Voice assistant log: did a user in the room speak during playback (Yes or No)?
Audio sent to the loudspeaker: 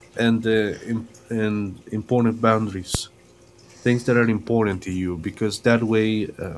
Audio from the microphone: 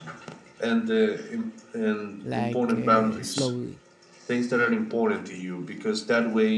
Yes